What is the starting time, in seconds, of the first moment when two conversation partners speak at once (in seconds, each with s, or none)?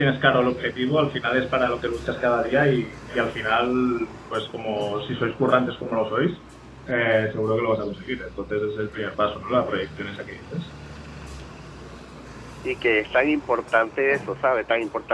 none